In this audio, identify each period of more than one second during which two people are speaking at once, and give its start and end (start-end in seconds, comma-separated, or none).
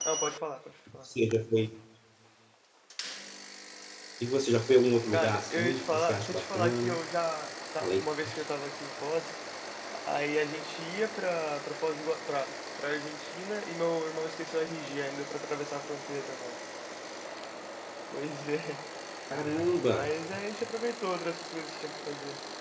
5.1-7.0